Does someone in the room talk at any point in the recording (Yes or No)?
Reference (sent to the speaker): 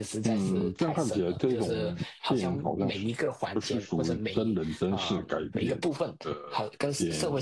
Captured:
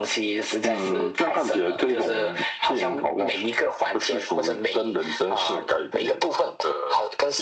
No